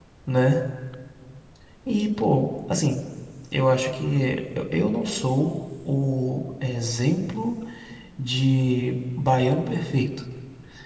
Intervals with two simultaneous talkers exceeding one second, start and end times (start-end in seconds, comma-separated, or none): none